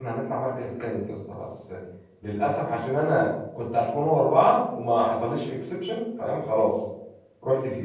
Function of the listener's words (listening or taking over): taking over